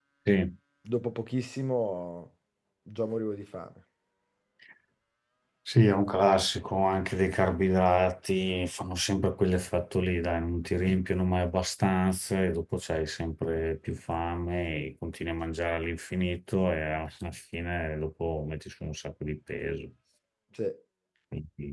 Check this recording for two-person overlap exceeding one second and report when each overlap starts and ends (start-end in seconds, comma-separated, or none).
none